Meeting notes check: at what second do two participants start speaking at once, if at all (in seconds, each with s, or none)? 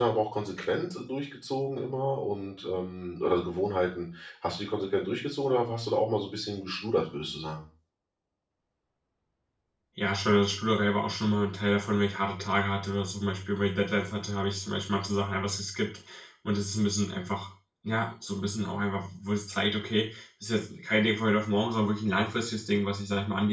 none